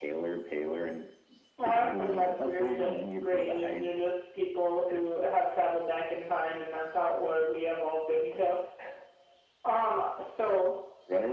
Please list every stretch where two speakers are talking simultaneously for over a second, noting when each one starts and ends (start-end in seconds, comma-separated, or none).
1.6-3.9